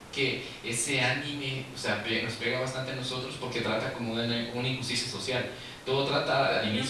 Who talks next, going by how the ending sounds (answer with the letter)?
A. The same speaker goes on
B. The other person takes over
A